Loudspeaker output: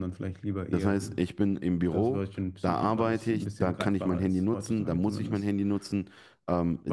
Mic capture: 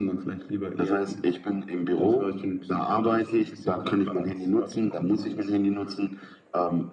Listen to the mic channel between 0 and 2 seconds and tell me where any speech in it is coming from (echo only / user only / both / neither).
echo only